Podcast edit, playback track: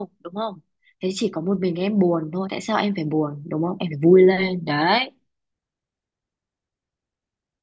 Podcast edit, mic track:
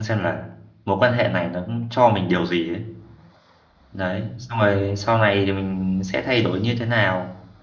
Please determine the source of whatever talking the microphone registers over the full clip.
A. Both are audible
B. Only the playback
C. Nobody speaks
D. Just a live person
D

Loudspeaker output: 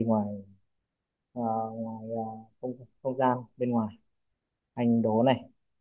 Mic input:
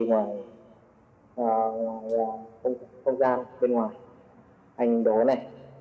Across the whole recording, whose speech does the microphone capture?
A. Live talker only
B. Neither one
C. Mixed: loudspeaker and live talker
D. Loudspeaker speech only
D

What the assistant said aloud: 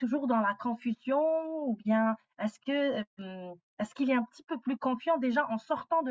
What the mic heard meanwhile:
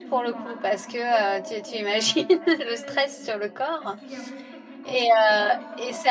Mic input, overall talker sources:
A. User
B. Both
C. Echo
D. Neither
B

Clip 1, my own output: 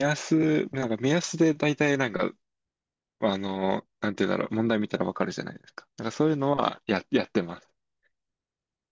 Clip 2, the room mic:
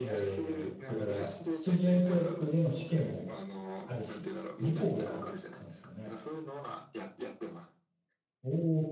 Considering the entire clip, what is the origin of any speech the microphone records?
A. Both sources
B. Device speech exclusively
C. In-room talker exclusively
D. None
A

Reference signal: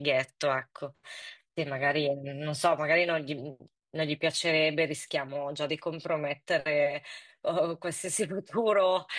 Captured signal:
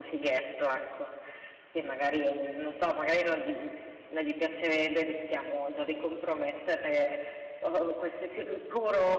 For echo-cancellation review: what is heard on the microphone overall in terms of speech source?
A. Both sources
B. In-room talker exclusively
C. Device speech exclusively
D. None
C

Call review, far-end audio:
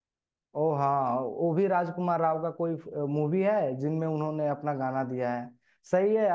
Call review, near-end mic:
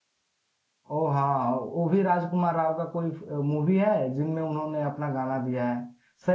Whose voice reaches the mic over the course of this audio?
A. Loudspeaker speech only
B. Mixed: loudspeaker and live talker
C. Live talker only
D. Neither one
A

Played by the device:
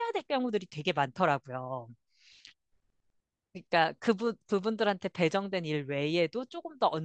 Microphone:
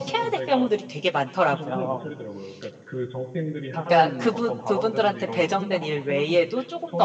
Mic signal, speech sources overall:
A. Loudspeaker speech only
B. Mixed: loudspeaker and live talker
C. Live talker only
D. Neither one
B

